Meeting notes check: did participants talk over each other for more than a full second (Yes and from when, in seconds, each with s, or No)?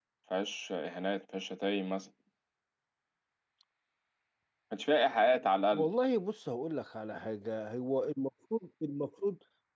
No